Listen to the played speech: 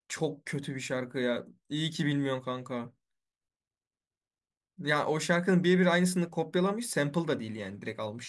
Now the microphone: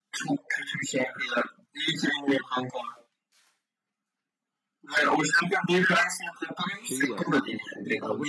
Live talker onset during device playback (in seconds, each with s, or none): 6.7 s